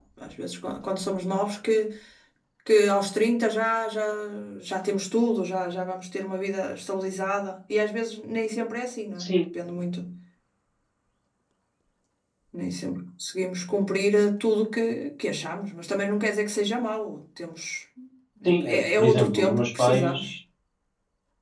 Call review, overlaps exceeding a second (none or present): present